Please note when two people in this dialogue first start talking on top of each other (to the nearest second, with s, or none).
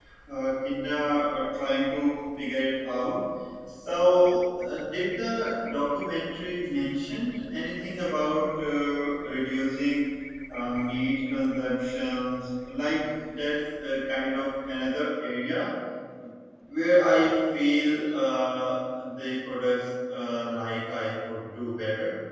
none